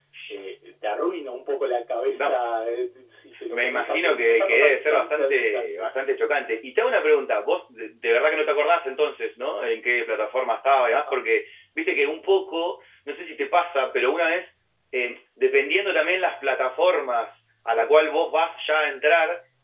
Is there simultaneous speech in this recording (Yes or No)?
Yes